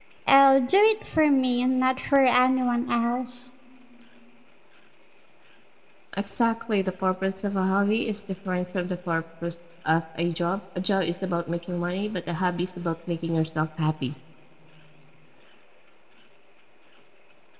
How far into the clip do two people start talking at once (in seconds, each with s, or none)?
none